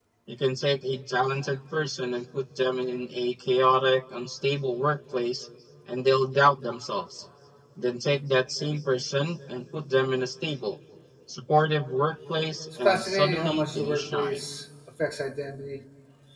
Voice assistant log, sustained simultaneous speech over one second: present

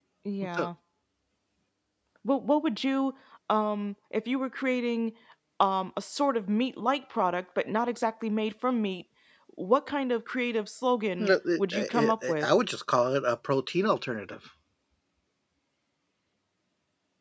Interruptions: present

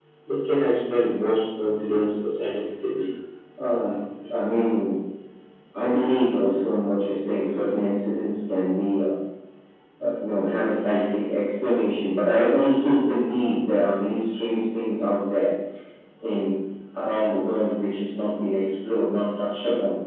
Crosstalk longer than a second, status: none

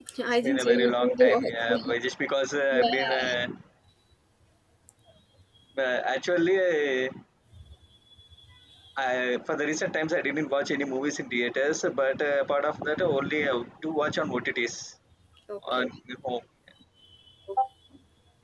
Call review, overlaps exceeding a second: present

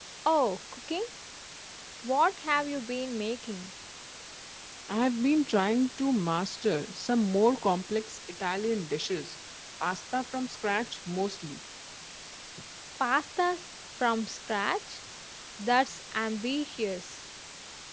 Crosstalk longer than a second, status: none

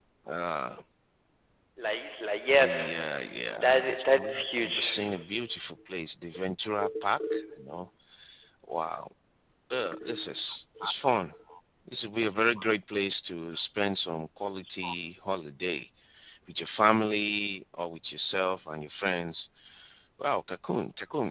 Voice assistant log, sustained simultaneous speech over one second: present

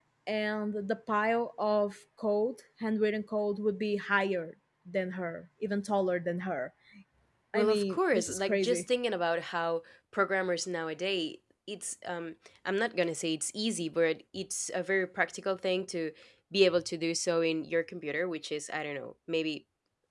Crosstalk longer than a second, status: present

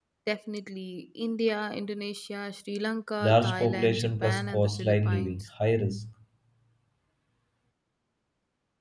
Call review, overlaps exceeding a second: present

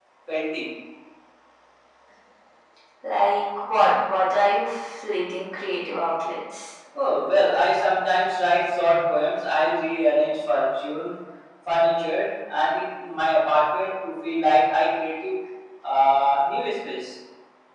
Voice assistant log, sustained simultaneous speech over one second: none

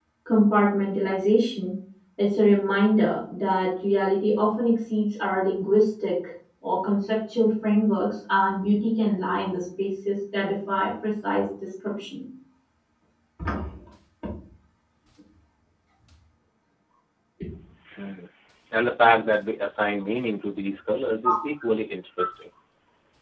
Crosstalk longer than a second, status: none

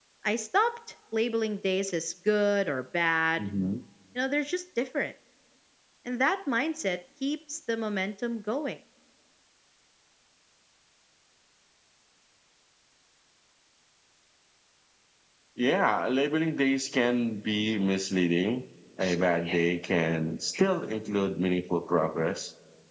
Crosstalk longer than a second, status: none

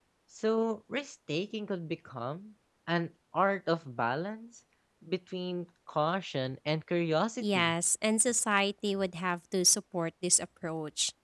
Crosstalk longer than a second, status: none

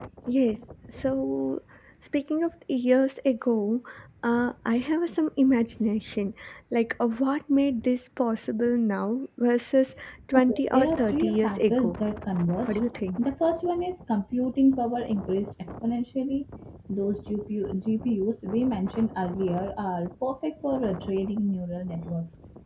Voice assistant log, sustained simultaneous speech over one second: present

